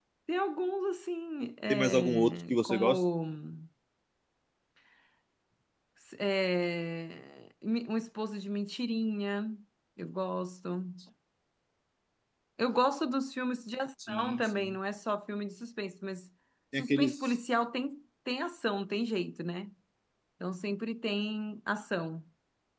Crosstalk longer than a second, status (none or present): present